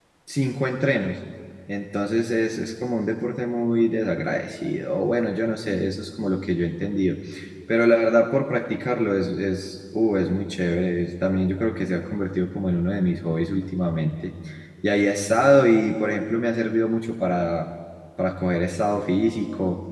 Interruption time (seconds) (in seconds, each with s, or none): none